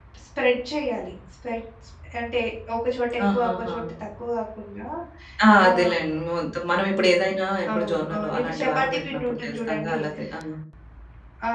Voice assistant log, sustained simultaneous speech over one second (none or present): present